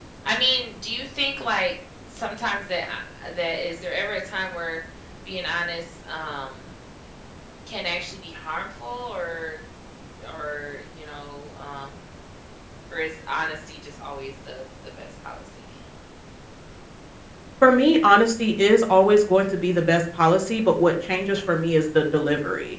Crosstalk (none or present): none